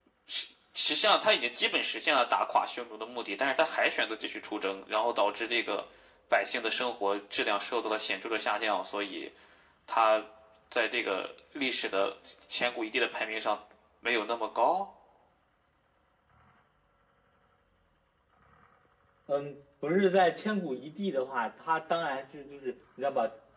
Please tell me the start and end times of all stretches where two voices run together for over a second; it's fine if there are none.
none

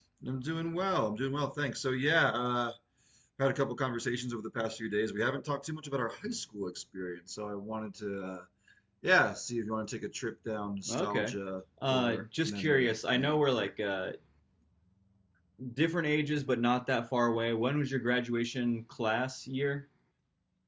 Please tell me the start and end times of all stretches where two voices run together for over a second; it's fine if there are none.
11.9-13.7

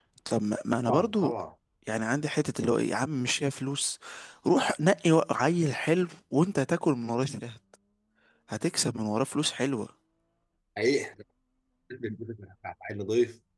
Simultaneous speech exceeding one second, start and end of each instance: none

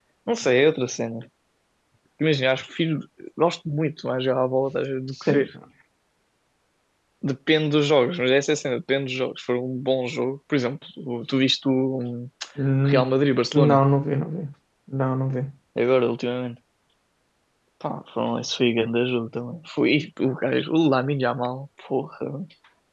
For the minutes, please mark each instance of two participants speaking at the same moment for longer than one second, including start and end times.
none

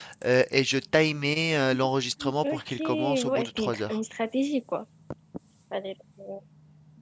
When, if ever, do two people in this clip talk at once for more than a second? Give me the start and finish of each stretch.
2.4-4.0

